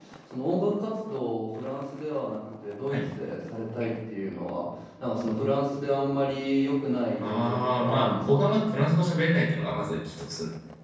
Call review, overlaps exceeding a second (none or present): present